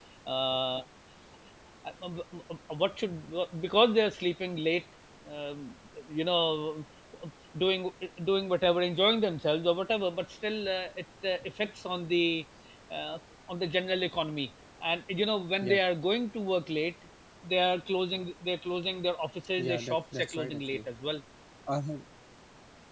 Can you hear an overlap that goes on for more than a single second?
Yes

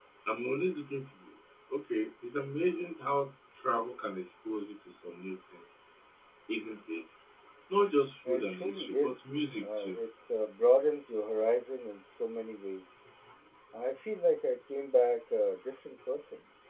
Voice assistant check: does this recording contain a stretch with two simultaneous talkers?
Yes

